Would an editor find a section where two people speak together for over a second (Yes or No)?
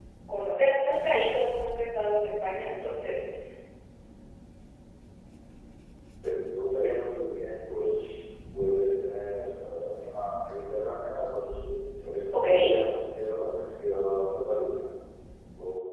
No